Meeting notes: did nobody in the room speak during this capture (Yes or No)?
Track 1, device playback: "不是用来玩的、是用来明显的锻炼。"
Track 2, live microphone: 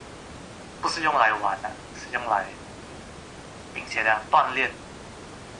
Yes